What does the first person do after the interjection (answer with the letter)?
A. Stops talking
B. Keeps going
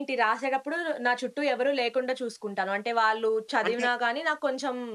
B